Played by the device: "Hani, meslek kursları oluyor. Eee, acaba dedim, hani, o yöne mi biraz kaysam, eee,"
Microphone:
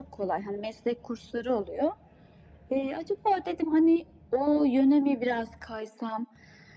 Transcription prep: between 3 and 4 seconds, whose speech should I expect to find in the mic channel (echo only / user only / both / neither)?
echo only